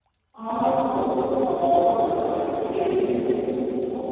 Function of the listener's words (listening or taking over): taking over